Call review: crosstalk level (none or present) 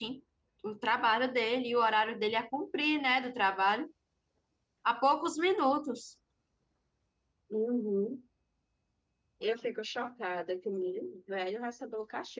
none